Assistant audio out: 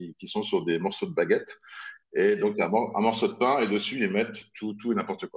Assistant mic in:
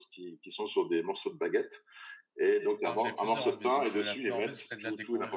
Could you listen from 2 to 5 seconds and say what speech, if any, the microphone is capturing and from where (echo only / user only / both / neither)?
both